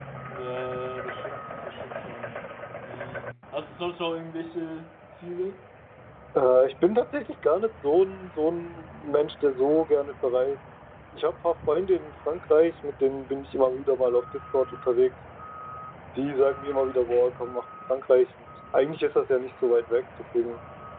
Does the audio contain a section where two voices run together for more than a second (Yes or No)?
No